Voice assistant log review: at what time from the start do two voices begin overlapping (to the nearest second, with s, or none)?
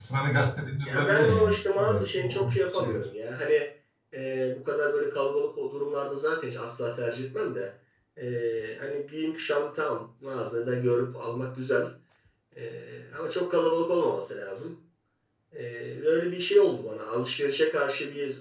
1 s